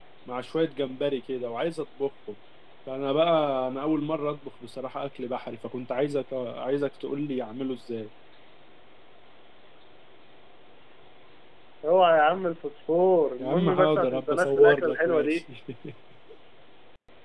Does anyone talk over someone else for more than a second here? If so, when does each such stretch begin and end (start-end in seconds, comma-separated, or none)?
13.4-15.4